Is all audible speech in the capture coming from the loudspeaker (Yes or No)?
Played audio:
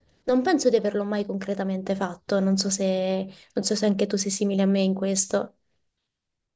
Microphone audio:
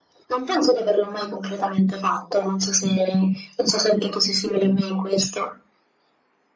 Yes